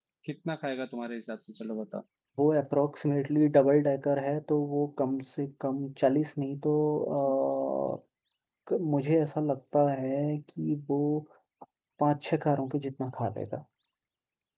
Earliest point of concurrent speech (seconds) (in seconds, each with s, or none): none